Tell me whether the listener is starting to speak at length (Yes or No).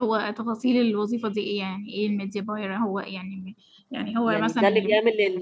Yes